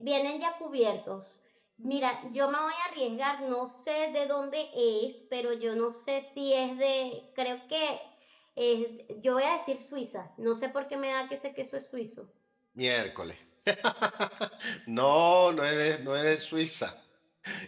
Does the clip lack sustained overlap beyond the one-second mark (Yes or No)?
Yes